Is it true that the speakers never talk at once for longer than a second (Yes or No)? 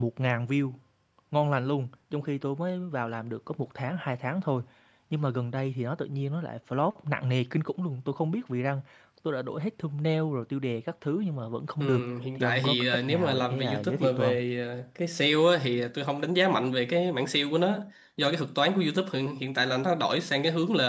No